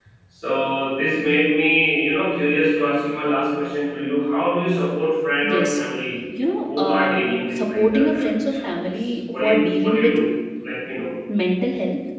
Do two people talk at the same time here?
Yes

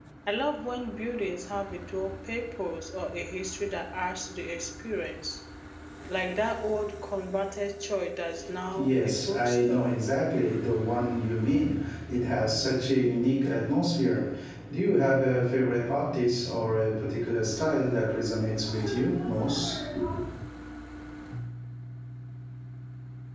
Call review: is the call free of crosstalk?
No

